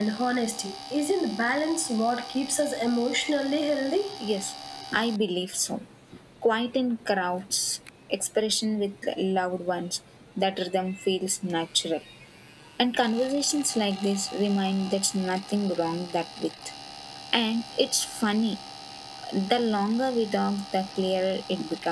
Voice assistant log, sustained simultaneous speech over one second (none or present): none